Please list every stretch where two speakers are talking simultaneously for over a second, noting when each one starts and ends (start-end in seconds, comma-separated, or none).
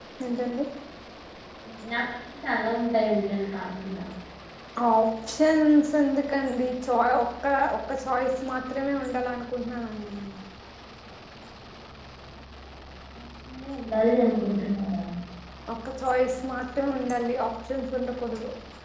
none